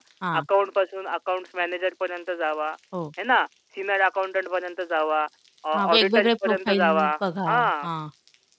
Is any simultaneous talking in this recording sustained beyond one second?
Yes, from 5.7 s

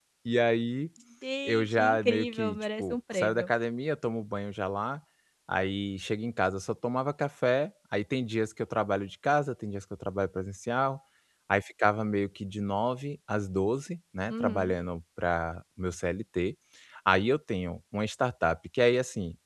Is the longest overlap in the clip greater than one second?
Yes, from 1.4 s

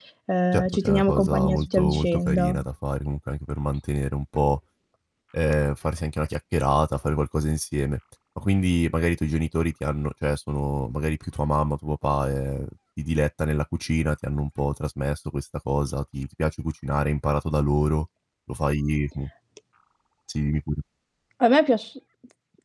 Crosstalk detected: Yes, from 0.5 s

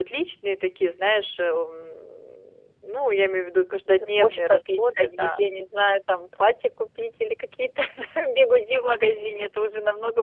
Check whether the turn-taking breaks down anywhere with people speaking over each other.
Yes, from 4.0 s

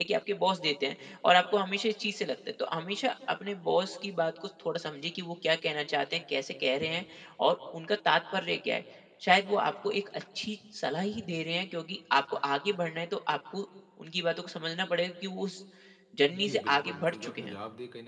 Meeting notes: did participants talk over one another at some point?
Yes, from 16.3 s

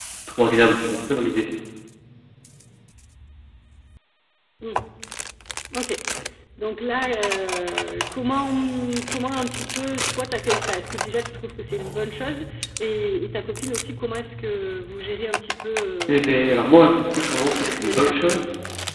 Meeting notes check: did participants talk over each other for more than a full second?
Yes, from 16.1 s

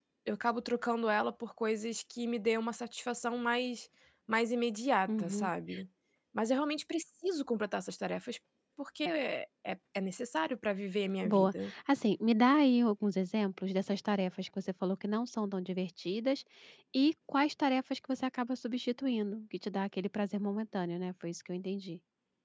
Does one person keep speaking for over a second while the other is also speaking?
No

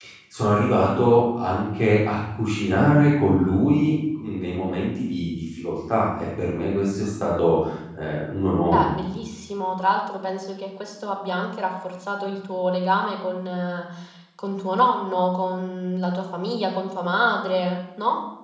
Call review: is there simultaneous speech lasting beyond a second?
No

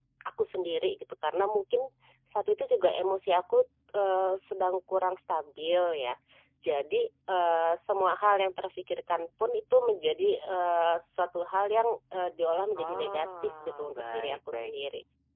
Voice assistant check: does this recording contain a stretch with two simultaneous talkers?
Yes, from 12.8 s

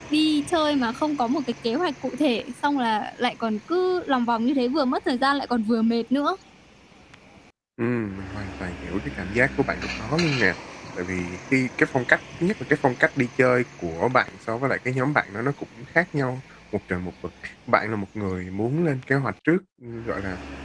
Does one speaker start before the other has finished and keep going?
No

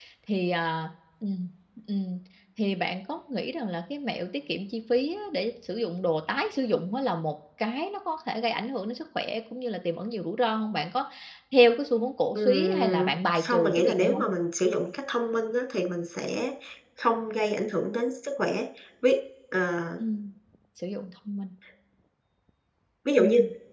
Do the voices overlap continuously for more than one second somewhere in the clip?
Yes, from 12.3 s

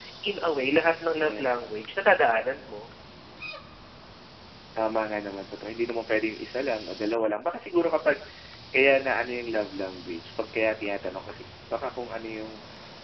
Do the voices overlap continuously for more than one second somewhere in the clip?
No

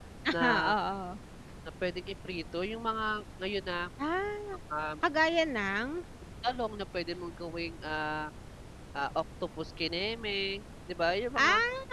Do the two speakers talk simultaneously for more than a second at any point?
No

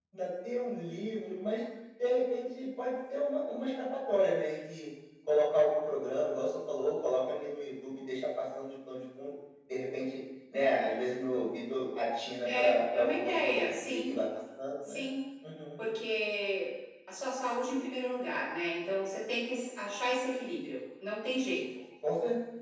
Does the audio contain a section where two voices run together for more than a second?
Yes, from 12.6 s

